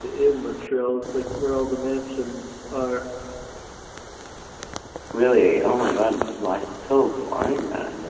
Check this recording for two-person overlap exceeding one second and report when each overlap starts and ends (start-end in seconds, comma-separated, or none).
none